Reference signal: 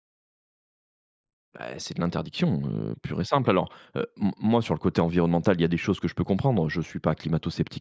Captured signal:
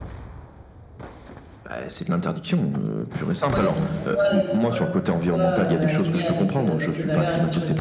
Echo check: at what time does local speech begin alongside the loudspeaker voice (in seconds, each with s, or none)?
3.5 s